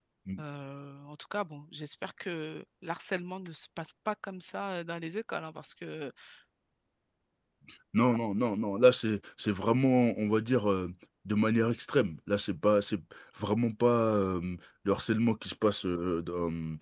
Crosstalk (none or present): none